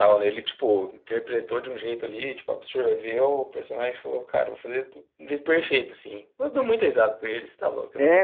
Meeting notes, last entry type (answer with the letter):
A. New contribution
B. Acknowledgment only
A